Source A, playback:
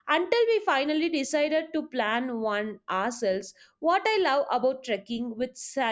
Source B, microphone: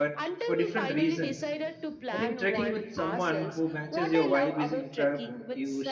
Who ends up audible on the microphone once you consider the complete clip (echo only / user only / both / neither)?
both